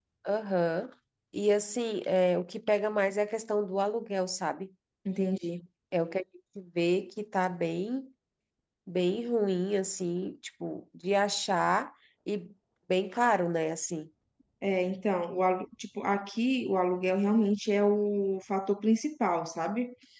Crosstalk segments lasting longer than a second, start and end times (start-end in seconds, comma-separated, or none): none